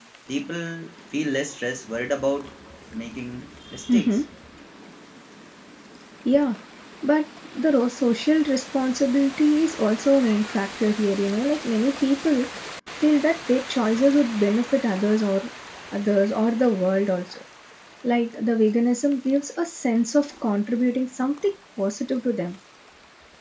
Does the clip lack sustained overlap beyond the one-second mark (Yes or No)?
Yes